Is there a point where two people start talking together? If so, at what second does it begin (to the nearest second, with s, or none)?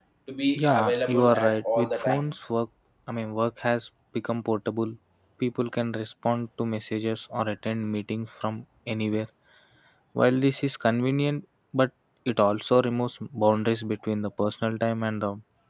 1 s